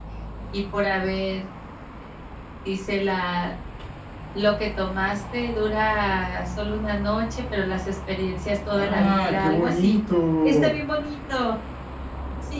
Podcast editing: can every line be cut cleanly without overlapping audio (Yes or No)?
No